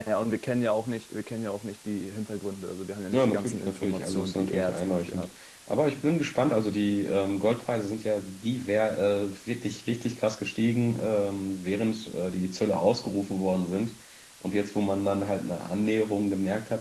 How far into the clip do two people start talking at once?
3 s

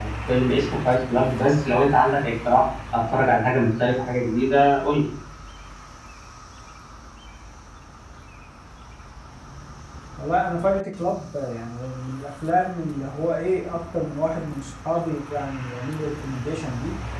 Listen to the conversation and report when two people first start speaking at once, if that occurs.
none

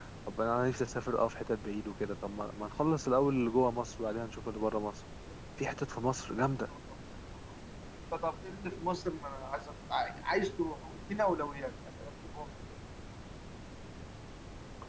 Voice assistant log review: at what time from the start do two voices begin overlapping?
none

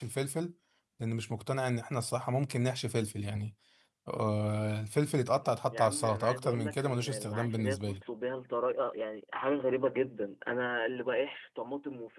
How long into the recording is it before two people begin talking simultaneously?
6 s

